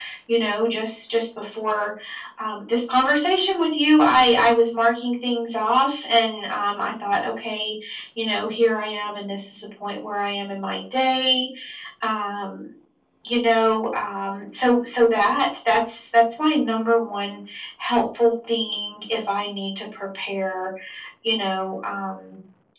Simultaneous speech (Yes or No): No